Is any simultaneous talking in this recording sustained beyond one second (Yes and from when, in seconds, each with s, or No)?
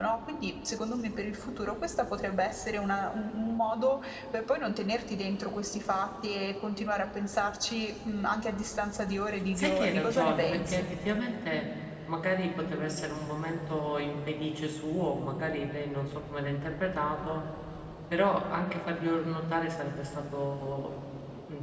Yes, from 9.6 s